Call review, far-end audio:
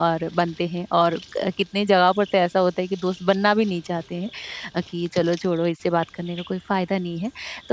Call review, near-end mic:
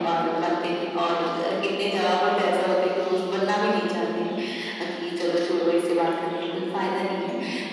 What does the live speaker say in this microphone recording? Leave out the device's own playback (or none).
none